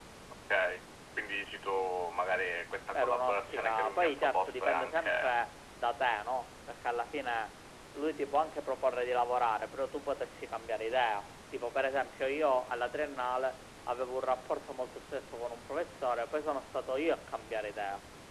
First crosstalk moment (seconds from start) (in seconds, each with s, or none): 2.9 s